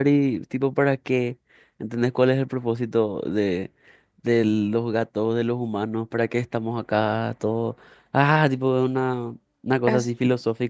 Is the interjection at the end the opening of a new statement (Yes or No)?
No